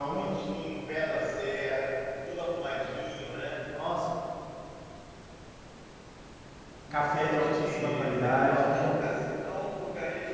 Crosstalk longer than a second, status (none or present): present